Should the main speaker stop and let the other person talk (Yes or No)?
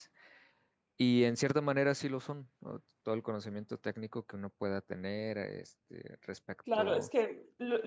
Yes